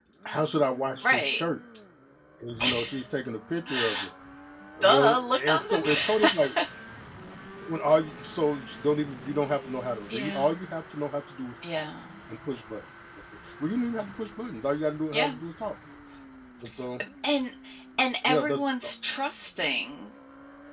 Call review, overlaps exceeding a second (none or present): present